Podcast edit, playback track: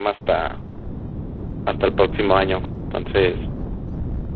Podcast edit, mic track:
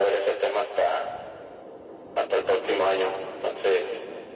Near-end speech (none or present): none